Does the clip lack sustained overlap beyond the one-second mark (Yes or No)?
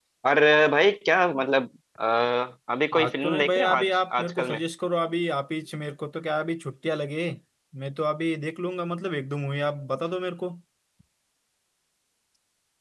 No